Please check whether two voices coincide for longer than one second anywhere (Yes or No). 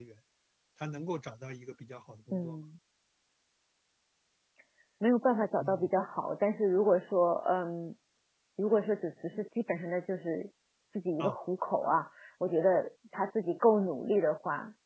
No